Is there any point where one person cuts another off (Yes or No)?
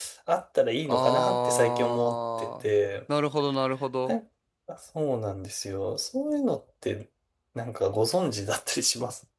Yes